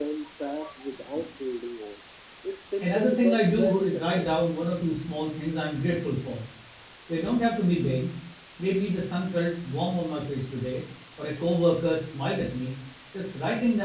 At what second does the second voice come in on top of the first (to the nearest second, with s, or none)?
3 s